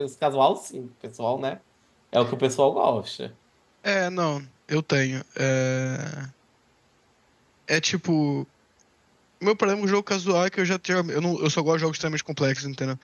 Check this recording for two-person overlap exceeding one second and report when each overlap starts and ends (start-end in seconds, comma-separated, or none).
none